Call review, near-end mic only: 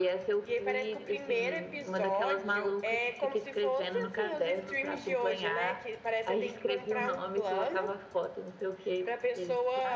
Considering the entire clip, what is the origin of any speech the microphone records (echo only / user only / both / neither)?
echo only